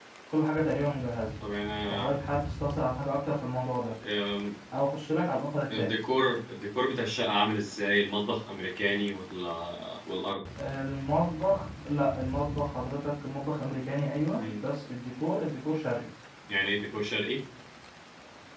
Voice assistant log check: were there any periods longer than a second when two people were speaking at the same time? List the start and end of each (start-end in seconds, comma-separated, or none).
none